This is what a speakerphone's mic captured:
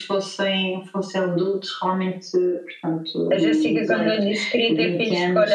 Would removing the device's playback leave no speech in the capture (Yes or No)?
No